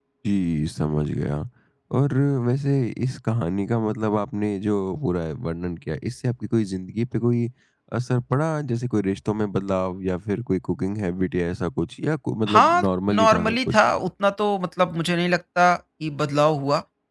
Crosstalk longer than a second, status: present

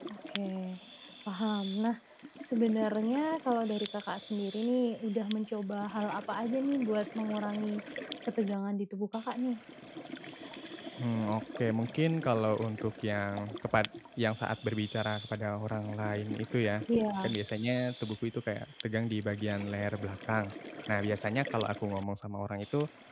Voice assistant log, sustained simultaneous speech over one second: none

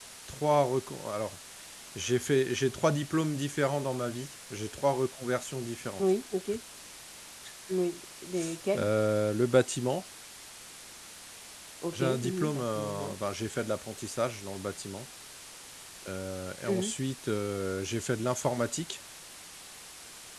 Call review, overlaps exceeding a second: present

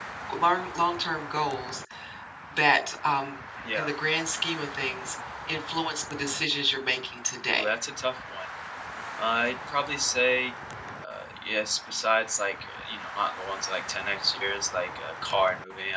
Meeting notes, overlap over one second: none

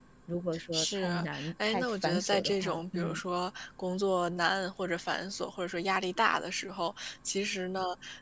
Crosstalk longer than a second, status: present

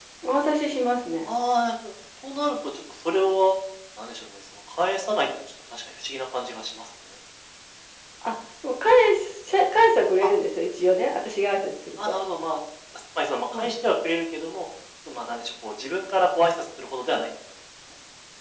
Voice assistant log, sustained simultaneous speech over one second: none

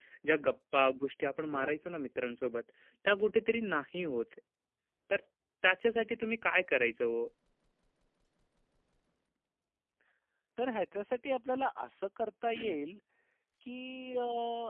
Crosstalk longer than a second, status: none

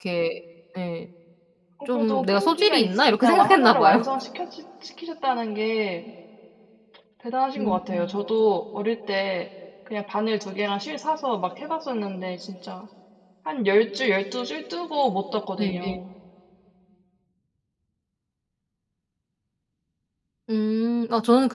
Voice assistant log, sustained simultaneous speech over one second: present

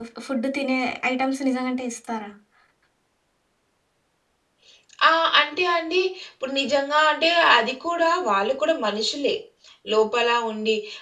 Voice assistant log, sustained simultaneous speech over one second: none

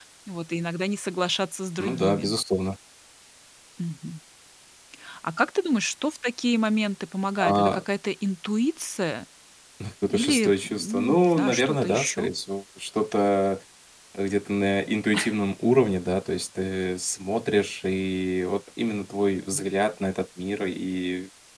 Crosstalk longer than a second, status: present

